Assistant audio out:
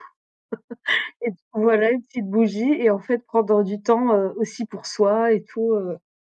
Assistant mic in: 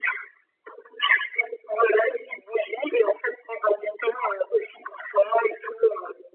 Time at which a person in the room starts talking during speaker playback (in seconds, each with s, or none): none